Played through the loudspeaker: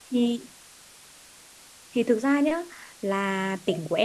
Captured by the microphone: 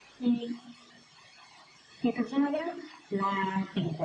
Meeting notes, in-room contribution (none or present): none